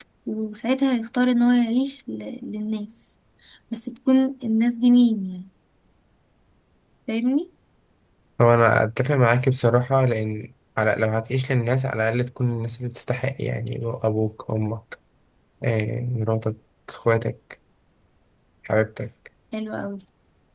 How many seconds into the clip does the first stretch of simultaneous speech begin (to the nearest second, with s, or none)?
none